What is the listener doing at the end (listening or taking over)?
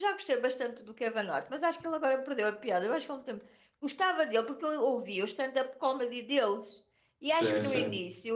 listening